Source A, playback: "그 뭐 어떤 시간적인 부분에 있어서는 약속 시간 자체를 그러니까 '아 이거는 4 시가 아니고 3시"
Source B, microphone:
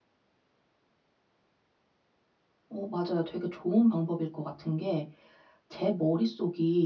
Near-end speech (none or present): present